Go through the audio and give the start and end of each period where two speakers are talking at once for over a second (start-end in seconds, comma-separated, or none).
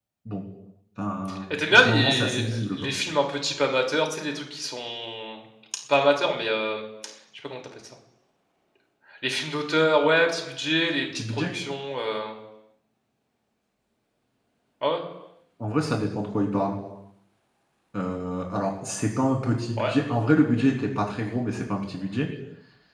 1.5-2.9